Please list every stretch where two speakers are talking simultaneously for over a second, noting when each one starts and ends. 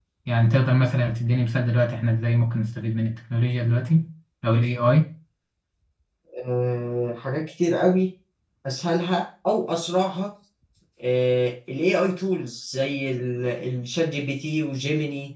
none

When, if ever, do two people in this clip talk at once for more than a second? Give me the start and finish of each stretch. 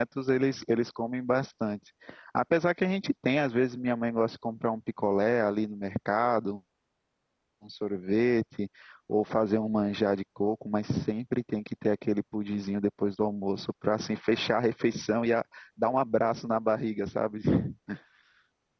none

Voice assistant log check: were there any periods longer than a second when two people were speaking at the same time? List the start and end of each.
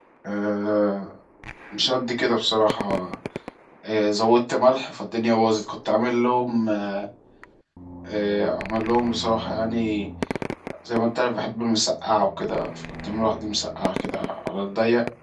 none

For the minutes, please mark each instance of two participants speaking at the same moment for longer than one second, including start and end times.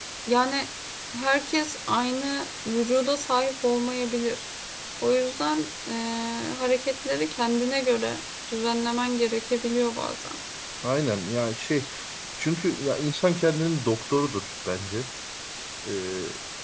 none

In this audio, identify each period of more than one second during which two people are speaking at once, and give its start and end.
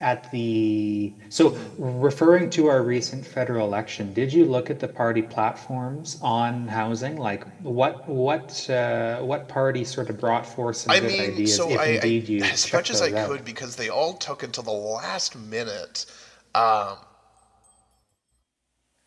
10.9-13.4

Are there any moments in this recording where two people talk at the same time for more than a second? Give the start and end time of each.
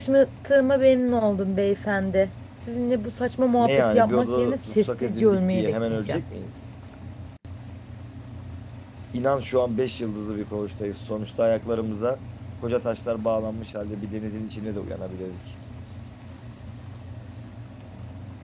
3.6-6.2

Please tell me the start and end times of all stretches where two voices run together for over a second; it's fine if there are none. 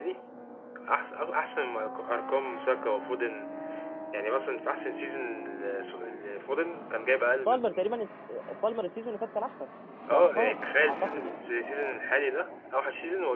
10.1-11.4

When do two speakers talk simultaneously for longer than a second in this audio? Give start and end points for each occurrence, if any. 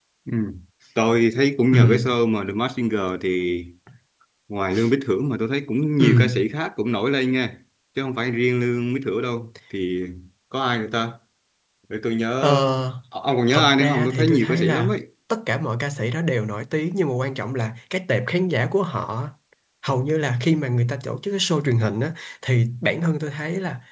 13.5-14.9

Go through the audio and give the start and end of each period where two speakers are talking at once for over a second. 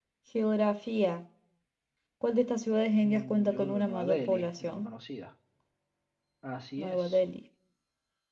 3.0-4.8

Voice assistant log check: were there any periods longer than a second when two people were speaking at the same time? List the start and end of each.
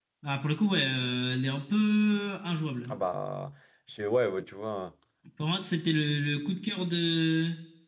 none

